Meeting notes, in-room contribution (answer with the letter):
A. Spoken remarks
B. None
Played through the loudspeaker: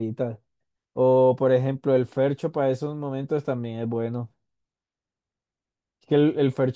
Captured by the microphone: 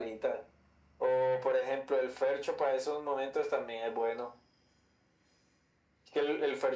B